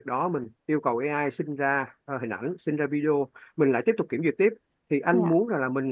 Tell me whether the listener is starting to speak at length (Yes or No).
No